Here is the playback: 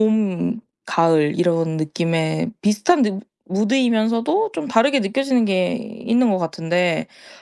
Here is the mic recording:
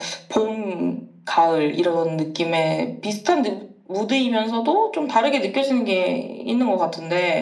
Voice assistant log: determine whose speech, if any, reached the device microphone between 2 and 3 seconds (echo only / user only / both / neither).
echo only